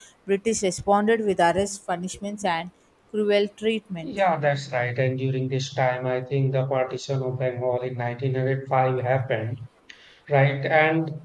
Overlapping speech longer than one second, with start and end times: none

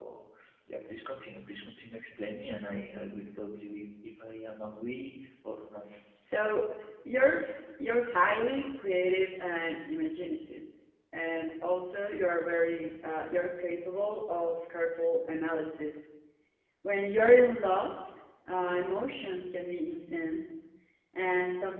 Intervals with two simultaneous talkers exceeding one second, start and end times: none

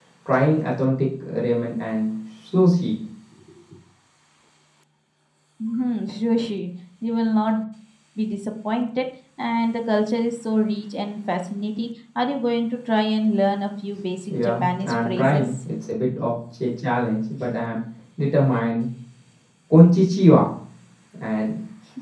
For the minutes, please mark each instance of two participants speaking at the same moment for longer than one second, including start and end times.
14.3-15.6

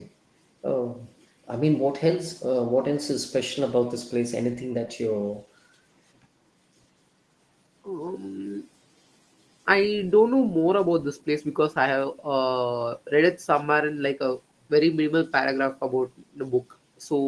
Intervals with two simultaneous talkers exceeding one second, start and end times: none

